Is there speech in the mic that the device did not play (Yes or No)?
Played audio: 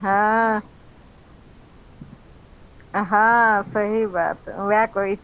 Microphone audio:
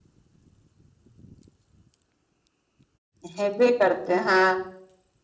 Yes